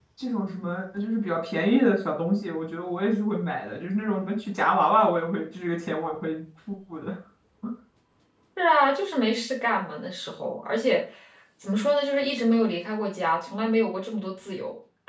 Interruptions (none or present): none